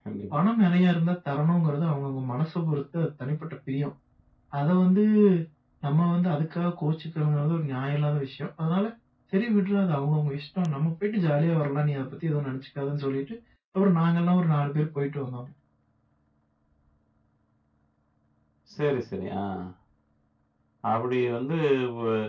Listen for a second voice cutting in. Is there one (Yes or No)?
No